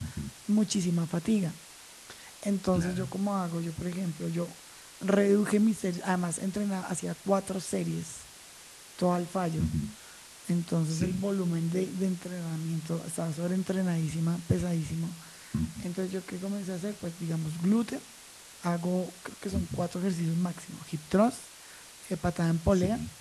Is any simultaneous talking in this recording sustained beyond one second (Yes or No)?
No